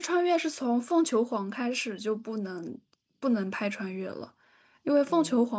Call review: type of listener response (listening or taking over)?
listening